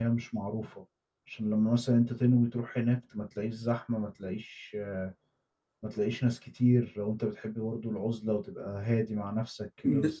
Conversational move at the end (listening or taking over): taking over